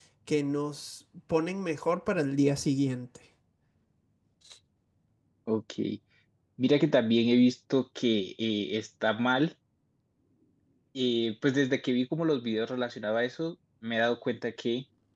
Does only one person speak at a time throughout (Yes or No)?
Yes